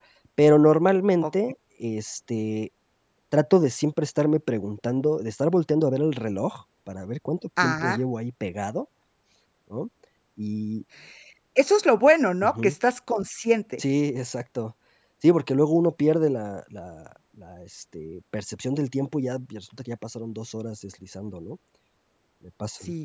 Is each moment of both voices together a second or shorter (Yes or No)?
Yes